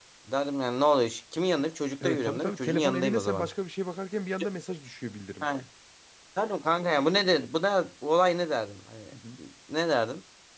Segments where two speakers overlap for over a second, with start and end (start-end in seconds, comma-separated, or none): 2.0-3.5